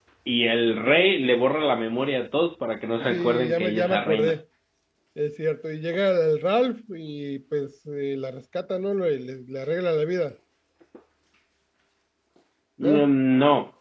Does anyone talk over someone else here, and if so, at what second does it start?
3 s

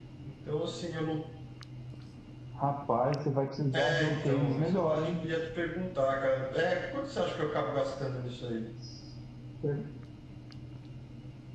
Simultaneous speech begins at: 4 s

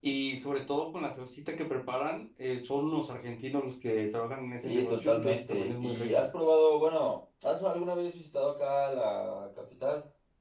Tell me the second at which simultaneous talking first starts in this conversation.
5 s

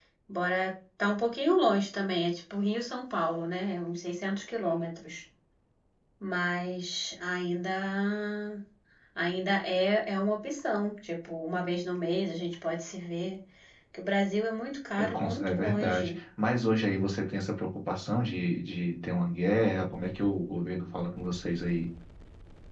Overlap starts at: 15 s

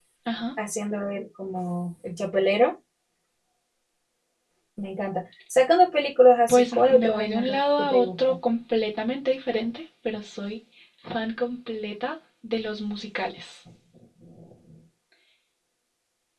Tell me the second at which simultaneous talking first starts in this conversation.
6 s

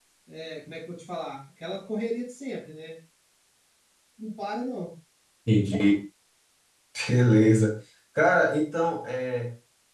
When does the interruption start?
none

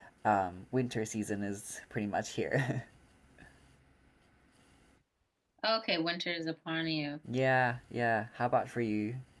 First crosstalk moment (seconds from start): none

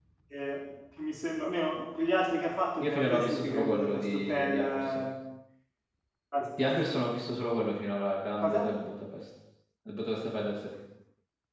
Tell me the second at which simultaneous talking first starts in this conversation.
3 s

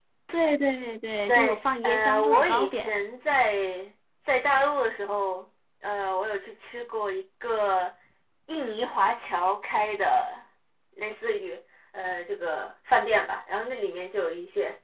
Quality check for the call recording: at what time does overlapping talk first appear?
1 s

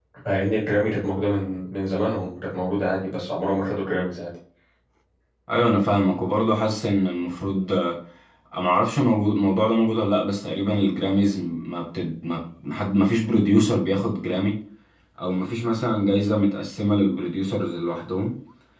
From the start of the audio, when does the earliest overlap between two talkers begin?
none

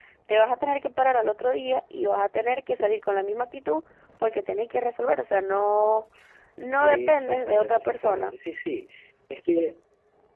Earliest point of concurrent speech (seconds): 7 s

